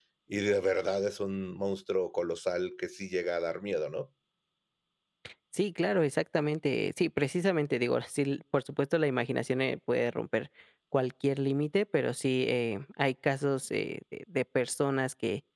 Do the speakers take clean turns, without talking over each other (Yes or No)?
Yes